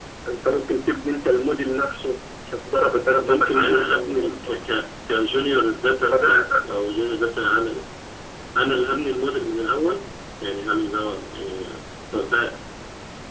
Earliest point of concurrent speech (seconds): 3.2 s

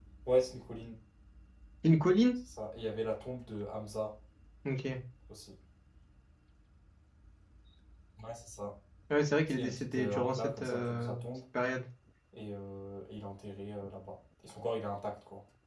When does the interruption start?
9.5 s

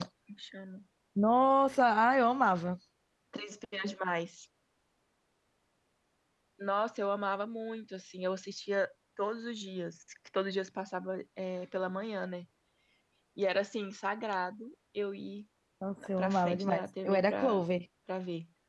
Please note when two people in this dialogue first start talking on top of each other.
16.2 s

